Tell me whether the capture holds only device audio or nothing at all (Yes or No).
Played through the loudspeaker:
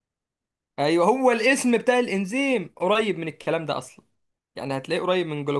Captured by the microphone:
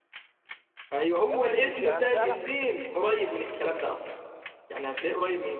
No